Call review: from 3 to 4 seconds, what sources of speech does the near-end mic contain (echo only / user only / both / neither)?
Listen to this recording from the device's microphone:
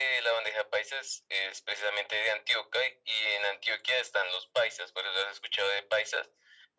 echo only